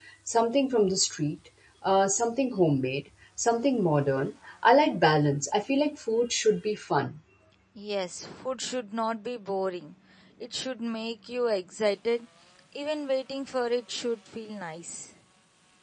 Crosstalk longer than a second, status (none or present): none